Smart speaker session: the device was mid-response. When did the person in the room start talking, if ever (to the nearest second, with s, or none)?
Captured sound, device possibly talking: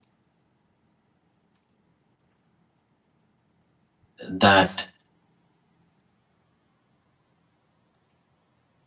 4 s